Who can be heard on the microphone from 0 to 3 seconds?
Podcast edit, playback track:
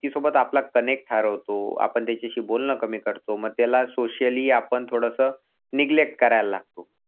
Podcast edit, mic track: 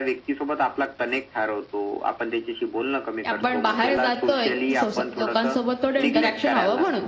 echo only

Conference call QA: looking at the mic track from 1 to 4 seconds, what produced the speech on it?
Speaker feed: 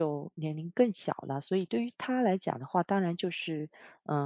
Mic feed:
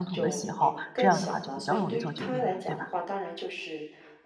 both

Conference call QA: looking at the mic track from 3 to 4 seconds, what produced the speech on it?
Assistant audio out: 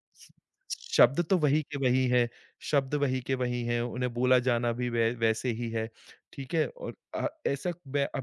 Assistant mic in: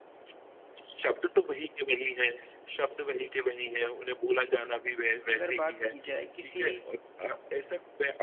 echo only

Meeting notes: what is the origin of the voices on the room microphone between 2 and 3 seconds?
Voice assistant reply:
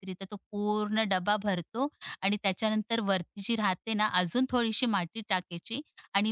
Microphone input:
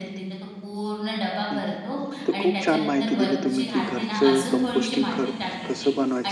both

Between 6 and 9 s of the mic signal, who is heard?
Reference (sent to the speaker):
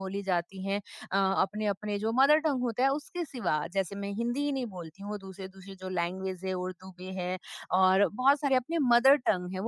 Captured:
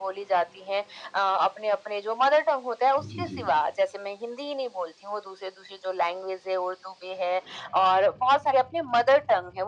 echo only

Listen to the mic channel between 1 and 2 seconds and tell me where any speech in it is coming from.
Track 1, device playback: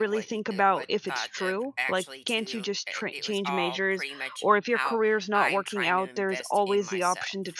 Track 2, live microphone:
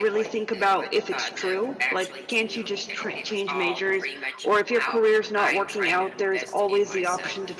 echo only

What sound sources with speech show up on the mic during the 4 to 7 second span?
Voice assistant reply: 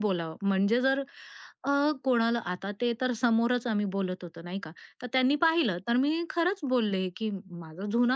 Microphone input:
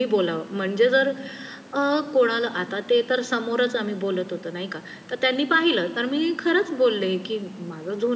echo only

